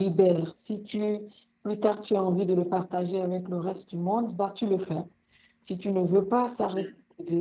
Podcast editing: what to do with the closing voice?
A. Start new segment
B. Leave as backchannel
B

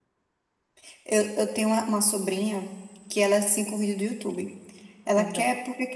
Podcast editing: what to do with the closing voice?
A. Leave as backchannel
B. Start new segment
A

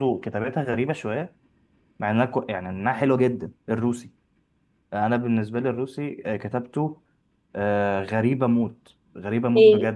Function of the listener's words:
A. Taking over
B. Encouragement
A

